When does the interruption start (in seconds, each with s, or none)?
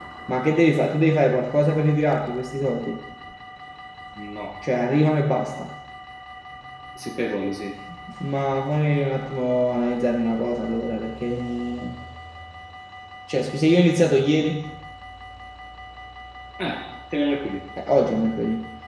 none